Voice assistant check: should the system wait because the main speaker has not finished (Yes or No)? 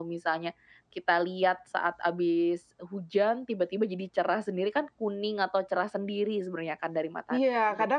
No